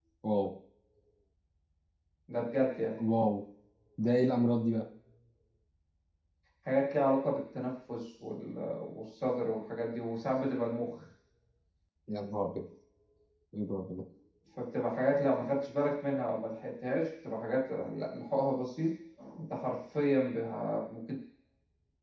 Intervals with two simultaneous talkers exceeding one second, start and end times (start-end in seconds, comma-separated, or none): none